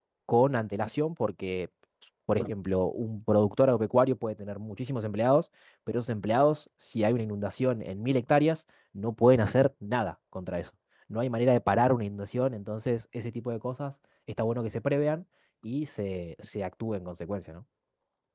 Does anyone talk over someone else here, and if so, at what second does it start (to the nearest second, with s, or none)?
none